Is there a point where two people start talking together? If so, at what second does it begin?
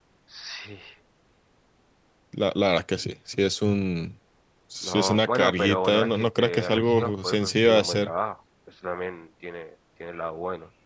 5 s

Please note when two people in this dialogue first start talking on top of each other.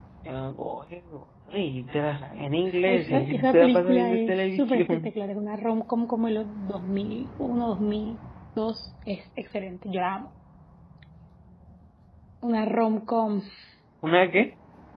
3 s

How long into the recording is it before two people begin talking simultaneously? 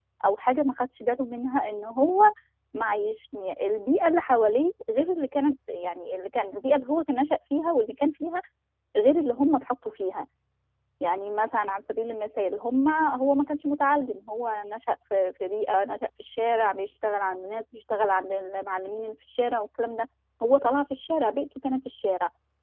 none

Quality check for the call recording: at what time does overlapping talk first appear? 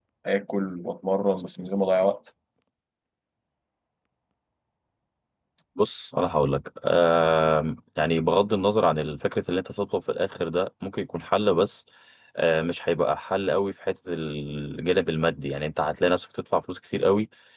none

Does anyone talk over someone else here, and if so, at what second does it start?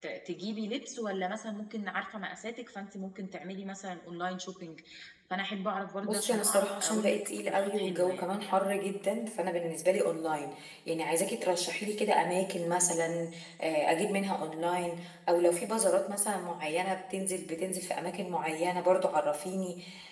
6 s

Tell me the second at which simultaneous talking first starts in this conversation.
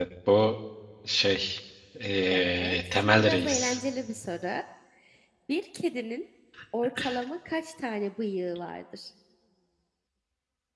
2 s

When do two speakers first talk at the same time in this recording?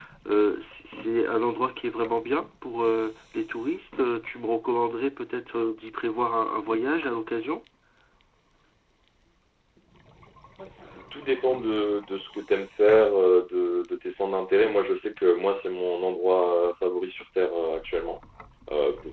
none

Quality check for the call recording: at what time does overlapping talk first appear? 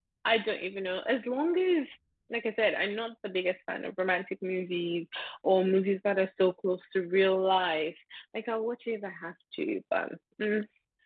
none

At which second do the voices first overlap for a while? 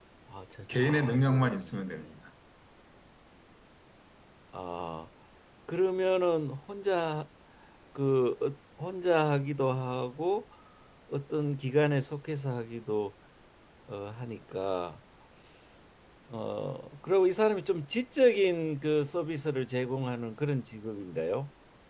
1 s

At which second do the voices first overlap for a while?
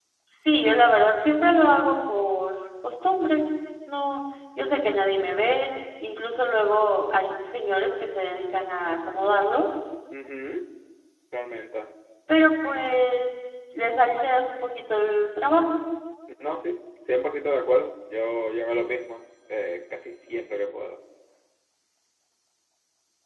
none

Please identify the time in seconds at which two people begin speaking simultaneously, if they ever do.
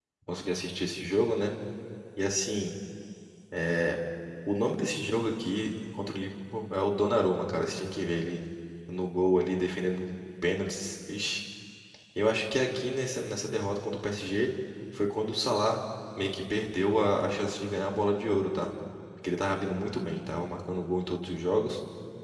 none

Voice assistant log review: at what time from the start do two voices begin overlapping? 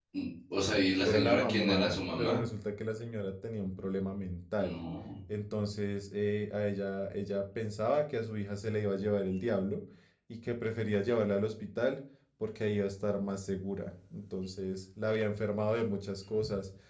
1 s

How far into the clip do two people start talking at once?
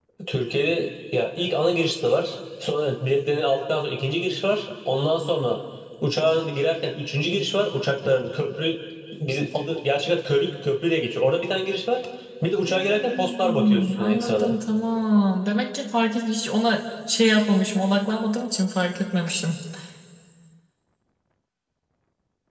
13 s

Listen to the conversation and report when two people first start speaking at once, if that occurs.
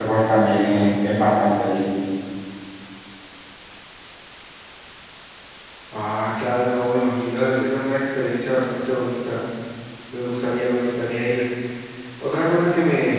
none

